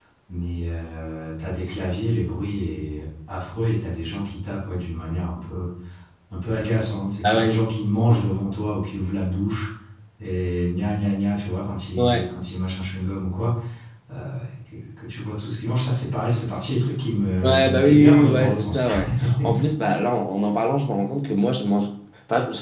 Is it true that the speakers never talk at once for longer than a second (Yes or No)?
No